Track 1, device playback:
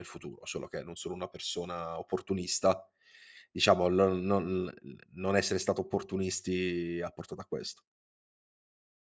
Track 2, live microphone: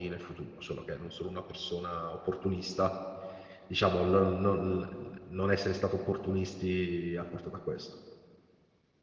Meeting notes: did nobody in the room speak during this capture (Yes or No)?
Yes